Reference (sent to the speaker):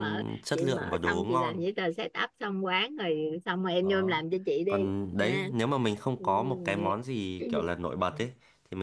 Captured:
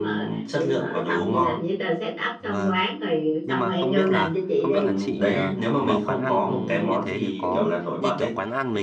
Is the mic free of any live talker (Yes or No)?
No